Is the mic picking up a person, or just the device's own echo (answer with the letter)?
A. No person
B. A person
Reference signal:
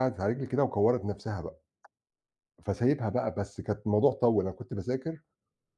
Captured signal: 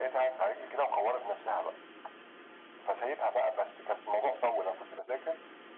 A